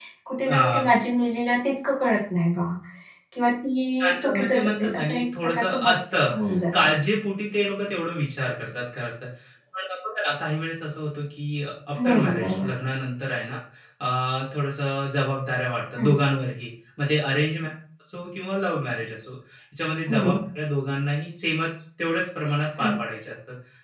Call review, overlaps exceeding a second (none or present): present